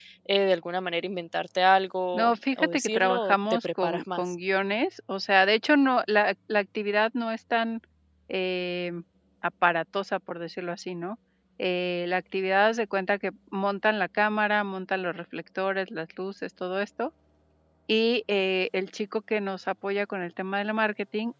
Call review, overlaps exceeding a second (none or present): present